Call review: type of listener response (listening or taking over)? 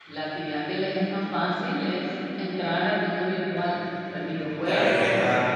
taking over